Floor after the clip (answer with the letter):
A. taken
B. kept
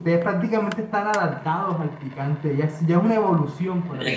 A